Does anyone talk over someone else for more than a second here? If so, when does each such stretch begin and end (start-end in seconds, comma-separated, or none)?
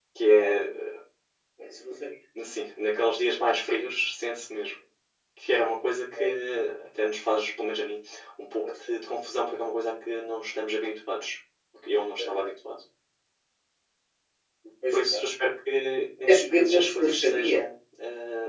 16.3-17.6